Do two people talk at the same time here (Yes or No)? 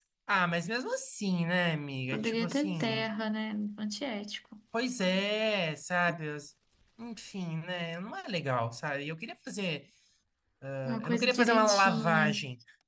Yes